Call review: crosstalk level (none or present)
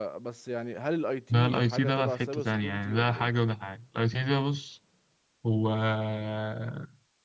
present